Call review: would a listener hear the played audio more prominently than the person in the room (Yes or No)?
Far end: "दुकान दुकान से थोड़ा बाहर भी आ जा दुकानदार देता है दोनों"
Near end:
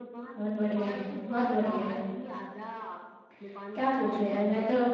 No